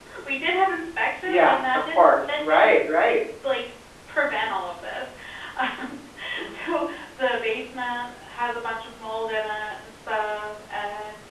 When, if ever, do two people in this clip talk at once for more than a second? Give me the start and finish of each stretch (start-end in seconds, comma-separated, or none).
1.2-3.1